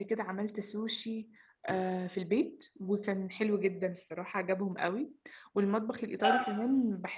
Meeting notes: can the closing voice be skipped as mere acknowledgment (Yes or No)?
Yes